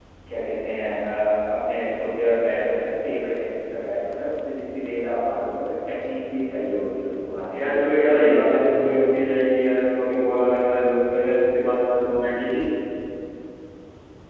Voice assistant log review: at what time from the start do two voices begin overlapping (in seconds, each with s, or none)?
7.5 s